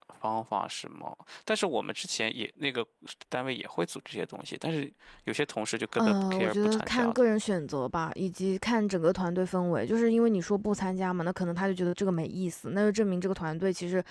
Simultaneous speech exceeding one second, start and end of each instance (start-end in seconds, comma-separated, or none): 6.0-7.2